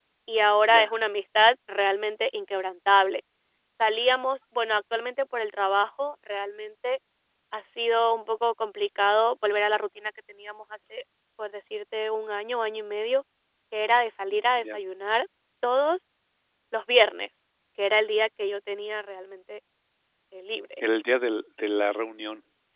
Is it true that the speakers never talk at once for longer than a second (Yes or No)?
Yes